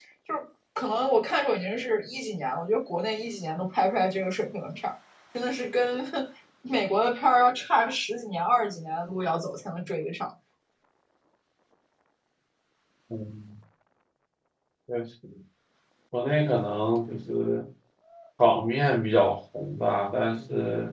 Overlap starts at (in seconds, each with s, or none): none